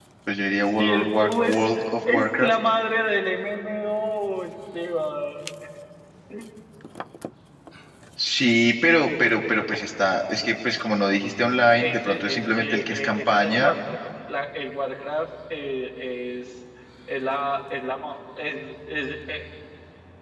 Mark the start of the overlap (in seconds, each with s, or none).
0.8 s